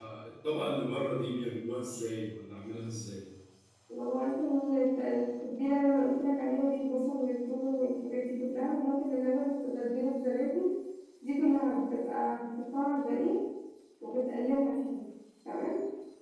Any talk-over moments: No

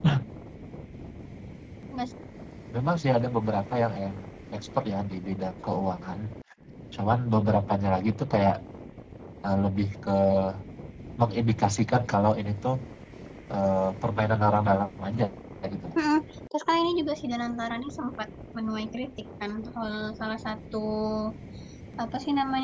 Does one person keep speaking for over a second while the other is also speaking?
No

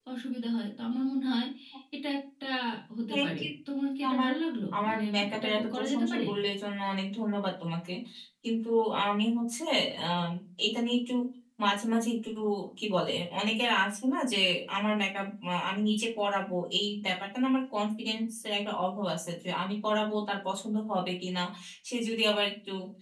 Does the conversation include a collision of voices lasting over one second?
Yes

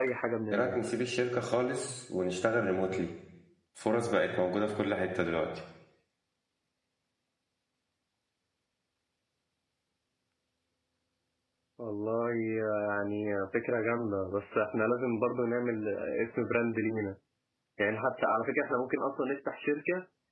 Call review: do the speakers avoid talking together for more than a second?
Yes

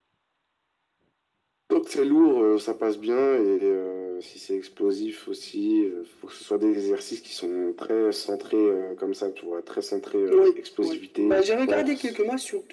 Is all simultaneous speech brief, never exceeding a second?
No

